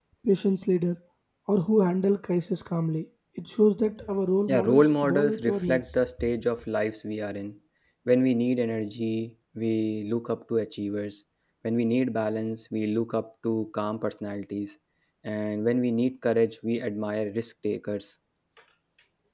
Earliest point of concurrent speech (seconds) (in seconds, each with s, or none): 4.5 s